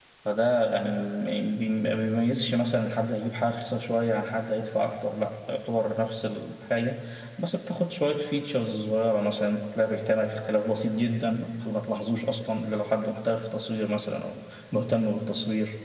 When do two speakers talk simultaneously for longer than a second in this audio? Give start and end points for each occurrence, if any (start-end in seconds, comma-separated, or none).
none